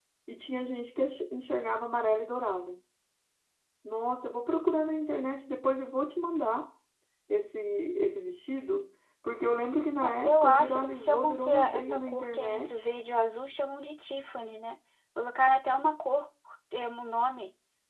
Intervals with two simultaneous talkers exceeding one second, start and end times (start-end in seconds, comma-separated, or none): 10.0-12.9